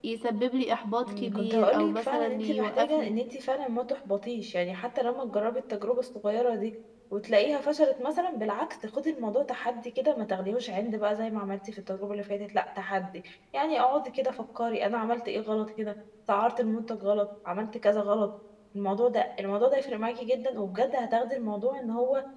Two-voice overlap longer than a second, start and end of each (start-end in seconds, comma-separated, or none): 1.1-3.1